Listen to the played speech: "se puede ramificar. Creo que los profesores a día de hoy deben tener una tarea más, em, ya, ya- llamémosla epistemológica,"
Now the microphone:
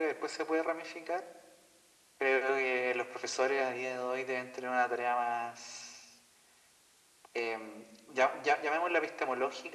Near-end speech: none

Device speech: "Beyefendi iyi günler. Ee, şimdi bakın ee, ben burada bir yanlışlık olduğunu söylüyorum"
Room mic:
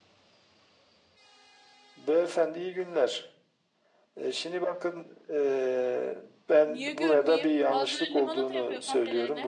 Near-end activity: present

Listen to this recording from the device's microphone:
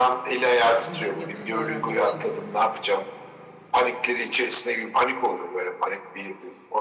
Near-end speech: present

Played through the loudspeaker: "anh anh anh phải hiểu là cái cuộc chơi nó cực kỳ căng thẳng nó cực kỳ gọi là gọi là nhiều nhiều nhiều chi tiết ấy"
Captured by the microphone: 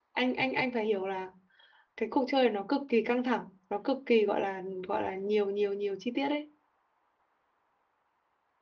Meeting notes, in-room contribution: none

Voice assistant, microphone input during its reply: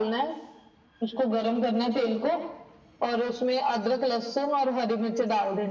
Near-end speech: none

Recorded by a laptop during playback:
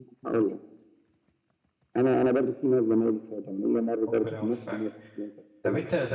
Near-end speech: present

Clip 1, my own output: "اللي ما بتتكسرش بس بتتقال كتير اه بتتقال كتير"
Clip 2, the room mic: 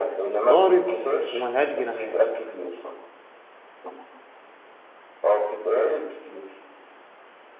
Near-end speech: present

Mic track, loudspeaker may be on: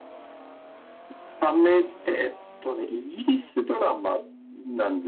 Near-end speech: none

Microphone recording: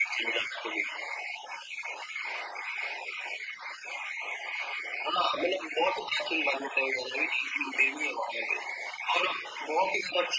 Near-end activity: none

